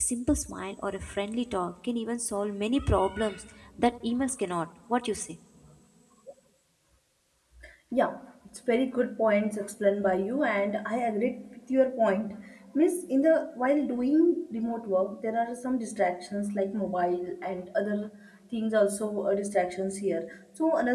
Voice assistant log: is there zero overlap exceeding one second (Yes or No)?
Yes